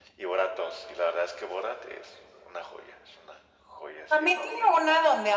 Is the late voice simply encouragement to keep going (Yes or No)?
No